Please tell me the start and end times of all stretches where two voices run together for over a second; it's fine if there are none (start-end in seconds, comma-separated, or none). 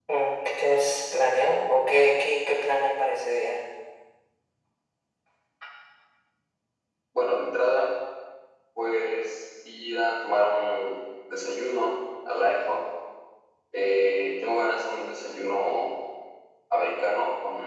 none